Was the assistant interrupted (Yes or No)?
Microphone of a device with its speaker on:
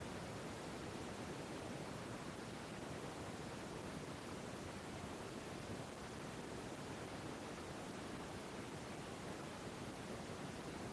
No